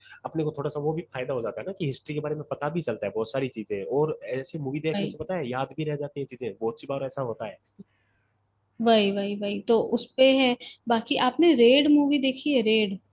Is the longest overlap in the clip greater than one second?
No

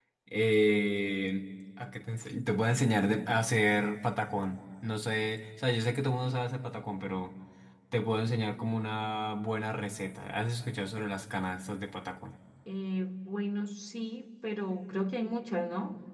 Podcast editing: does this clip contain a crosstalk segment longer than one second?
No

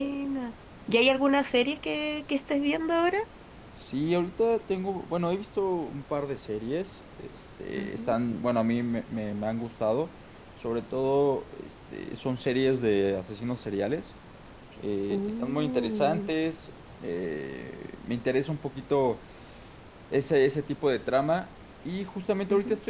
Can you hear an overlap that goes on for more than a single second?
Yes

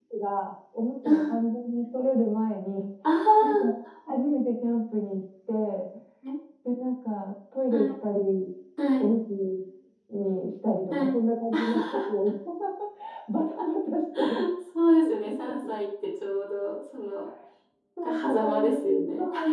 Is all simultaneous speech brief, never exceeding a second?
No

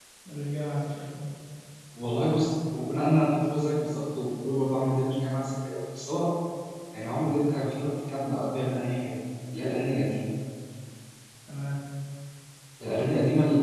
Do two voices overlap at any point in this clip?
No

